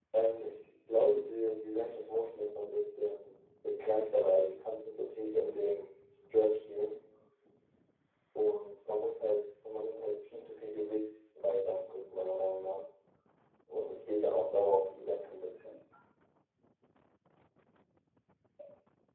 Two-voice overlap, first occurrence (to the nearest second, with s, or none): none